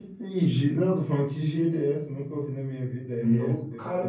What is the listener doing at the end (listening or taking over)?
taking over